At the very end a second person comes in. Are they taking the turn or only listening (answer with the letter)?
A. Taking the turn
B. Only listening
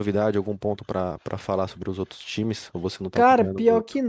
A